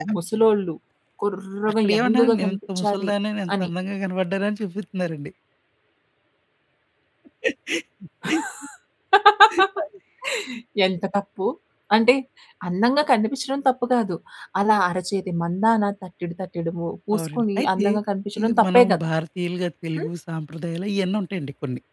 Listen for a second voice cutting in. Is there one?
Yes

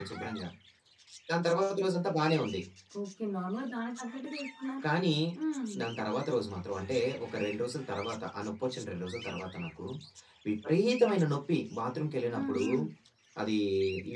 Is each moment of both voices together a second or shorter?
Yes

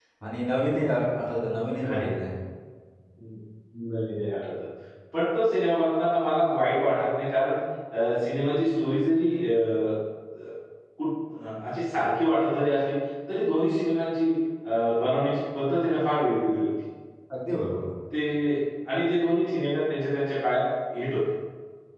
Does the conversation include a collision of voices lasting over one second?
No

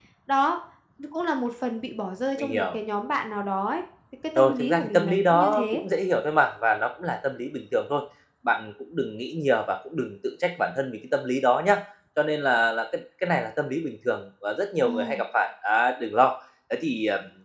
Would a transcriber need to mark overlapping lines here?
Yes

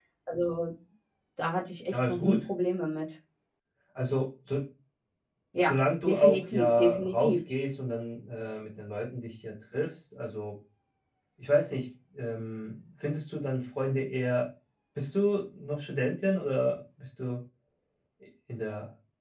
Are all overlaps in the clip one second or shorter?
No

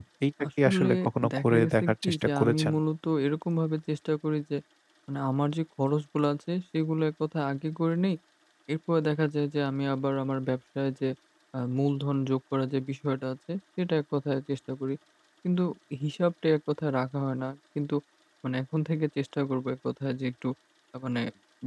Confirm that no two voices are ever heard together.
No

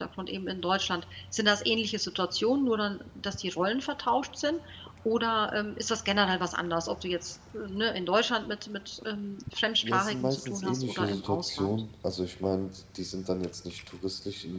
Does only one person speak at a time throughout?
No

